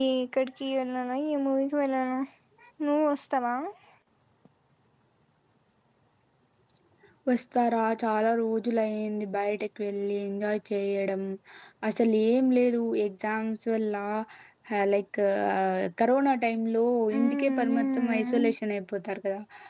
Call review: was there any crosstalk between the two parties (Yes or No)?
Yes